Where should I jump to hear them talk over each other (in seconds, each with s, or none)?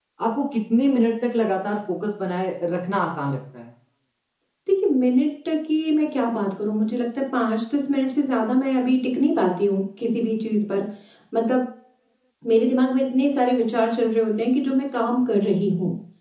none